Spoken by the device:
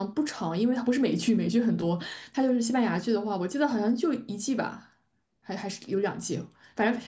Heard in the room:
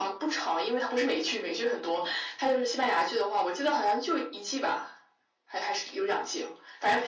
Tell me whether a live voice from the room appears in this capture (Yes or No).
No